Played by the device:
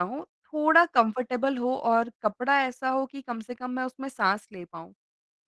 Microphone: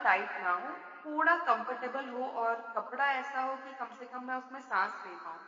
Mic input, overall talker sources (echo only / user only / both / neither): echo only